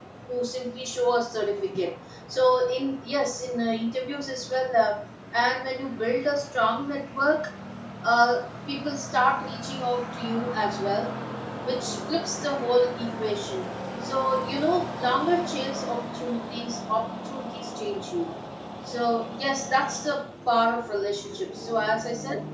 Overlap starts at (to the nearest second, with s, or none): none